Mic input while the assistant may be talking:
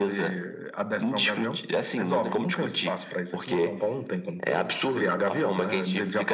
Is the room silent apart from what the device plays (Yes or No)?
Yes